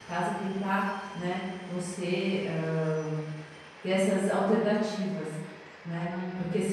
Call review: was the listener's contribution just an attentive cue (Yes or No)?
Yes